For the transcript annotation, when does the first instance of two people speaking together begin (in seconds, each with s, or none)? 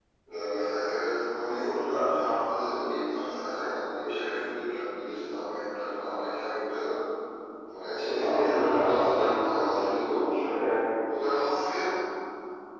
8.0 s